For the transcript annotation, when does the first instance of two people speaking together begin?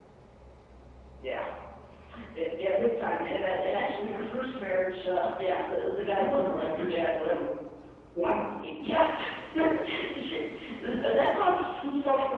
6.0 s

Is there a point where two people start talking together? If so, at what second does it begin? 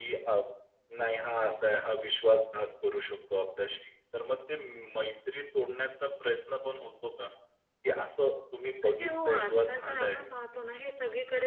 8.8 s

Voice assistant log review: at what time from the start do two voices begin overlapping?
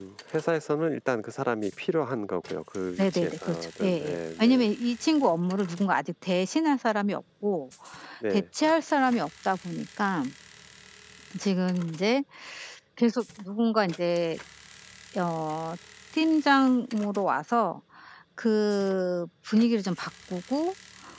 3.0 s

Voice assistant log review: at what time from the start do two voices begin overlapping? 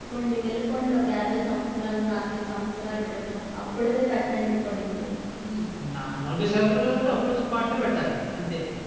none

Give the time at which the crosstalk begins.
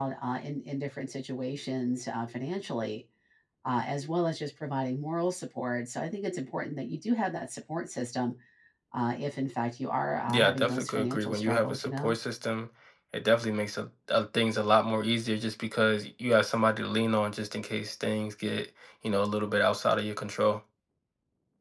10.3 s

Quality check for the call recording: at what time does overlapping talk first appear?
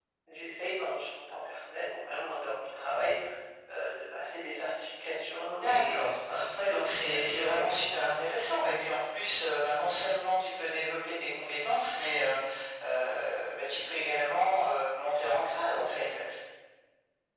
5.4 s

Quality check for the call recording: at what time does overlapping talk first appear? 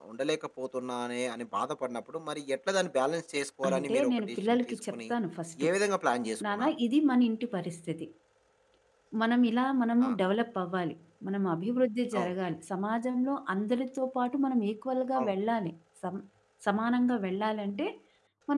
3.7 s

